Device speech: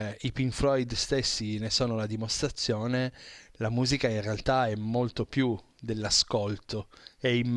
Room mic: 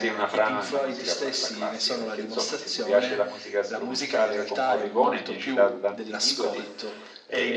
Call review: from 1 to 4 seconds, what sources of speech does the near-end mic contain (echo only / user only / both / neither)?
both